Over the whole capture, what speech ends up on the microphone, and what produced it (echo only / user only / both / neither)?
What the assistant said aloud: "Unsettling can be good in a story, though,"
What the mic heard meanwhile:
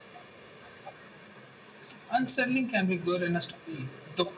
echo only